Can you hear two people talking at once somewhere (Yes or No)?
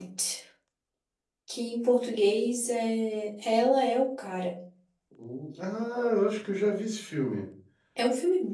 No